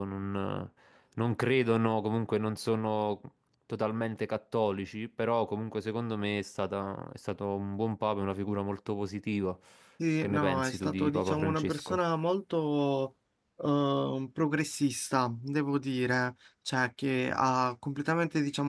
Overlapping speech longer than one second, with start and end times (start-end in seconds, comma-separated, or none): 10.2-12.0